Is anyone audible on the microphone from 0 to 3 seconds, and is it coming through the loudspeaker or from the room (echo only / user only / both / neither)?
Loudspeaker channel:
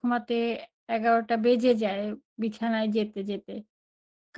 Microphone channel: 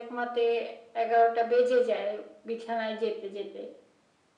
echo only